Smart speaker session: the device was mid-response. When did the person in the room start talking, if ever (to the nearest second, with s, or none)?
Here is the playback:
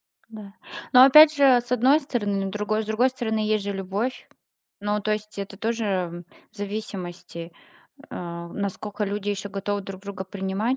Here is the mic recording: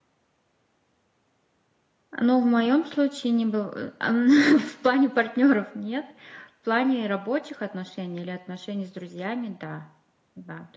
2 s